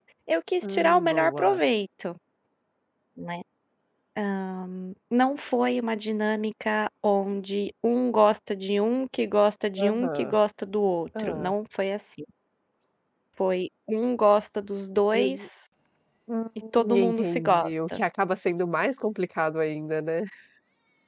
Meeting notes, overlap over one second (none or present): present